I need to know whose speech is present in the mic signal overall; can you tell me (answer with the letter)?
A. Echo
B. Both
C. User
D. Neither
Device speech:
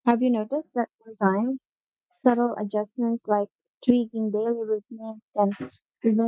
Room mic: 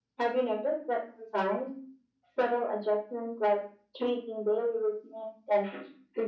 A